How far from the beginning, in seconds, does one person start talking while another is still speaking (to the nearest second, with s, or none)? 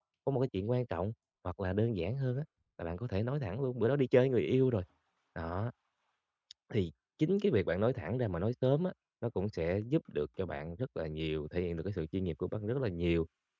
none